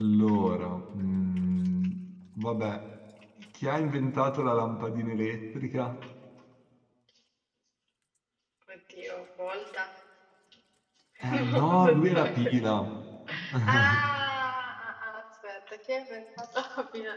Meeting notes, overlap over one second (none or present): present